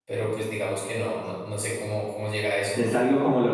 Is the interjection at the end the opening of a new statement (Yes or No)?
Yes